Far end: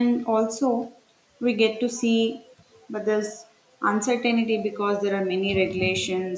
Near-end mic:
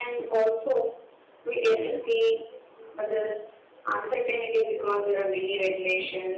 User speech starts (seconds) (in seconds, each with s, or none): 1.5 s